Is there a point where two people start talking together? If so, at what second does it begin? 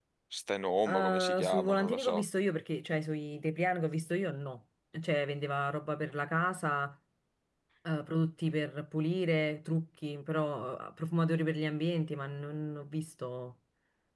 0.9 s

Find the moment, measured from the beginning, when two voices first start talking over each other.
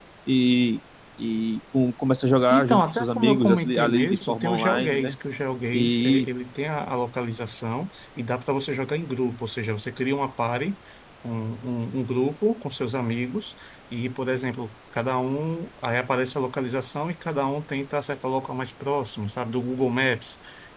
2.5 s

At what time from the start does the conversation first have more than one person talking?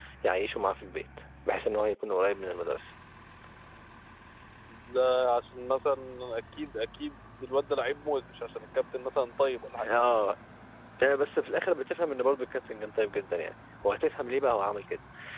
none

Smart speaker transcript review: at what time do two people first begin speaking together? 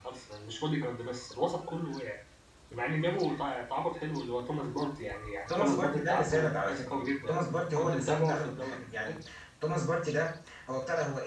5.5 s

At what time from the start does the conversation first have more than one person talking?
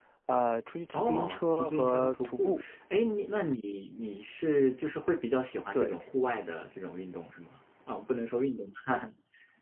0.9 s

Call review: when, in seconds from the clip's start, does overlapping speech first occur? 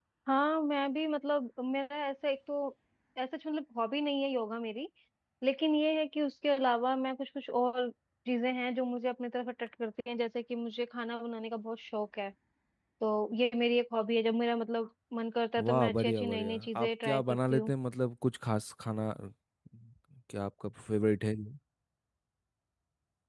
15.6 s

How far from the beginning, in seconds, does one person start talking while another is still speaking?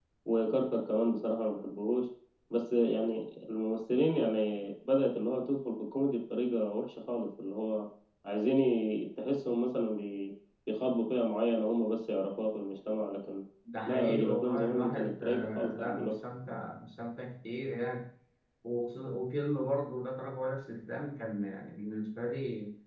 13.8 s

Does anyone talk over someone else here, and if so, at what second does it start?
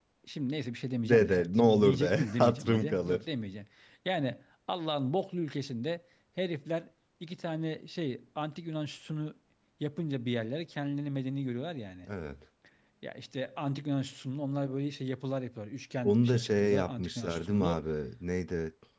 1.1 s

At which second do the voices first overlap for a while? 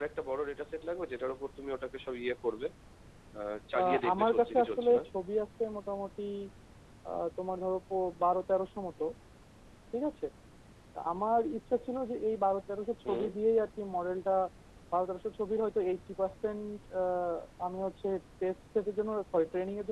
3.8 s

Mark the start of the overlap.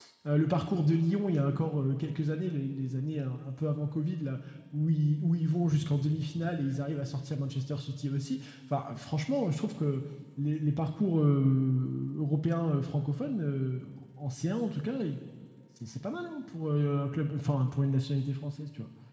none

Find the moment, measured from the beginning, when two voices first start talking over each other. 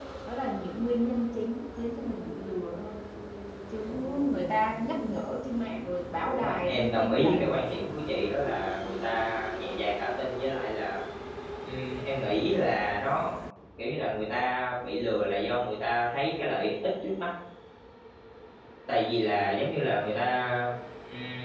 6.2 s

